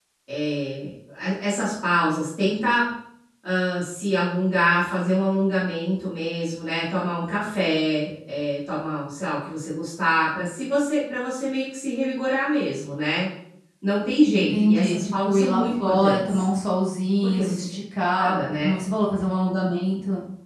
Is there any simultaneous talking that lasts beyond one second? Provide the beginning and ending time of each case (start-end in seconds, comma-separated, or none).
14.3-16.4